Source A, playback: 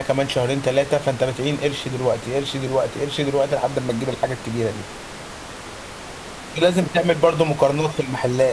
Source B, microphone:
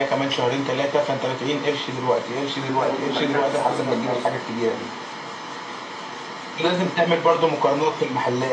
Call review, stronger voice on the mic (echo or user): echo